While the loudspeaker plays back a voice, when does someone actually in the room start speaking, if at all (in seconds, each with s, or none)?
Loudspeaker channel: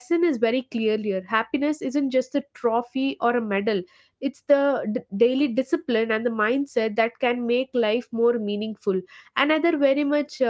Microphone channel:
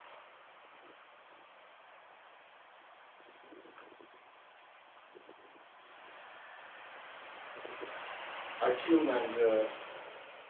8.7 s